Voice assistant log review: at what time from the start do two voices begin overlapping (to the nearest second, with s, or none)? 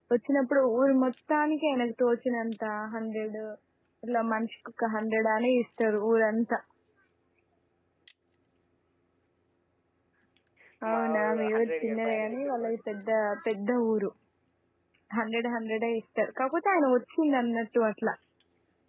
11 s